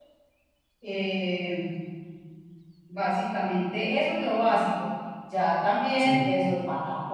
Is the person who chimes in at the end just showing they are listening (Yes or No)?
Yes